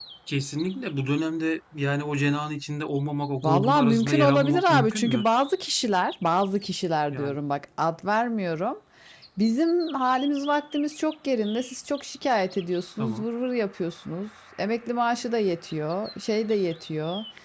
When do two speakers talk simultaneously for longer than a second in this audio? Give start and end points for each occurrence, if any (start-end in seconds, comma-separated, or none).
3.4-5.2